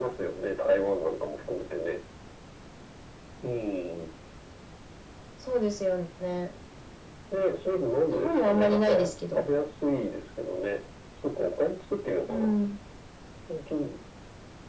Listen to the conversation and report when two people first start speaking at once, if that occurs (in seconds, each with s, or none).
8.1 s